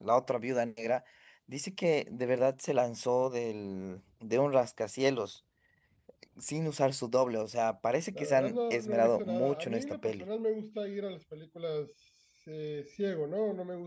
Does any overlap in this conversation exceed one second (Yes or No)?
Yes